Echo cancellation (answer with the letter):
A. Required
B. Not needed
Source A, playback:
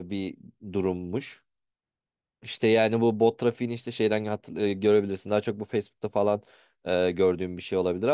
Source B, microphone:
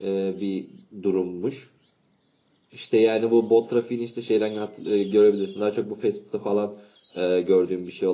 A